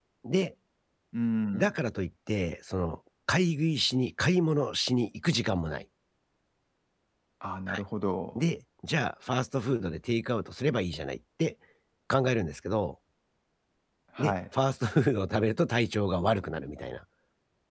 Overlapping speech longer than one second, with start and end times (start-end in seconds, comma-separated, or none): none